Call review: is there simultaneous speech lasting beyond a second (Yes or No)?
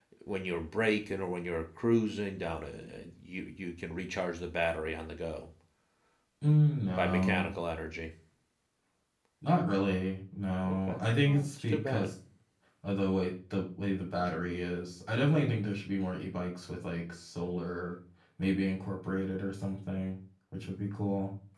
Yes